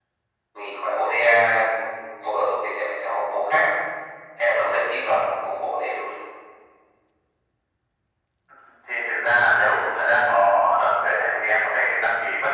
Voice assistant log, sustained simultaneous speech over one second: none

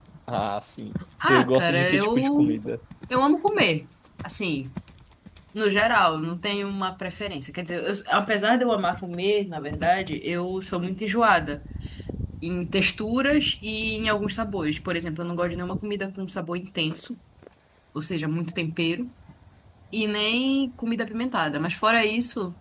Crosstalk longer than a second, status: present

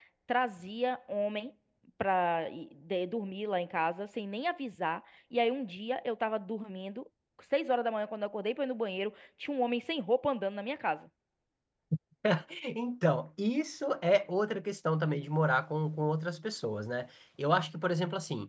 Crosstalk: none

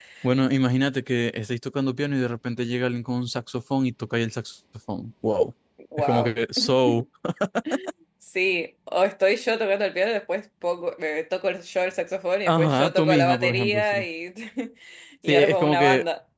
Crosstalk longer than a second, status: present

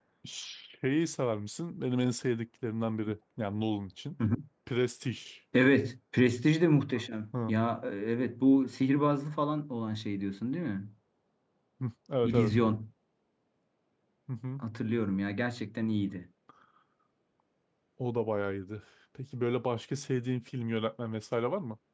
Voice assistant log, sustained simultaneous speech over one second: none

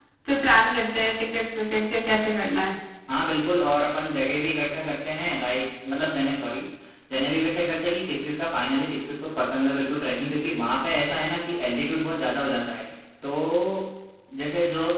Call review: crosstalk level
none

